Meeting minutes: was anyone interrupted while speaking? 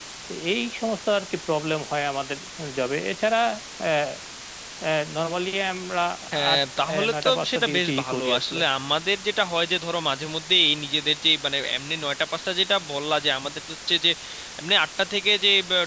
Yes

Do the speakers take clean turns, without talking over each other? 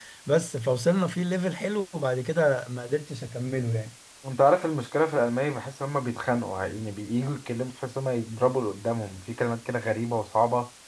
Yes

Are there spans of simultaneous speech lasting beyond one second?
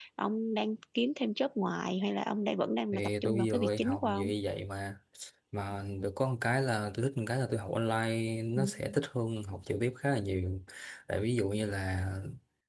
Yes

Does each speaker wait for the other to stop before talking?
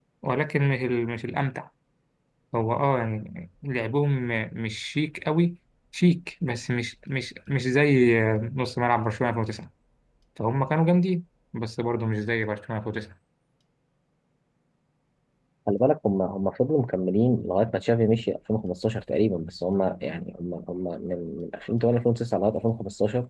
Yes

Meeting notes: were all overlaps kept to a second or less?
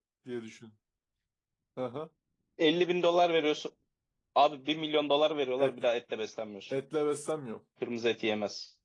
Yes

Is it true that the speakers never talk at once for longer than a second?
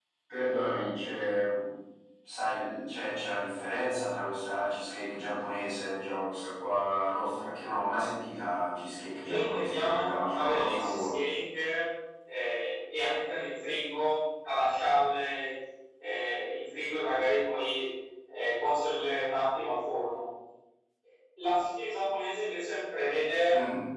No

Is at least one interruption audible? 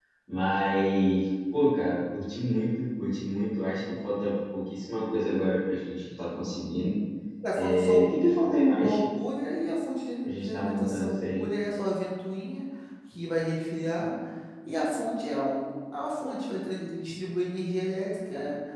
Yes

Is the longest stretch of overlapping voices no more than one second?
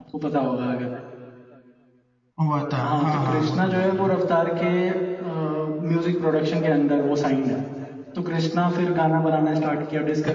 No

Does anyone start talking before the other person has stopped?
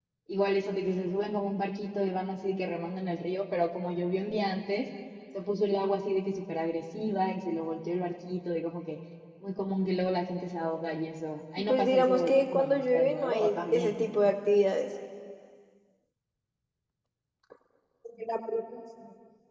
Yes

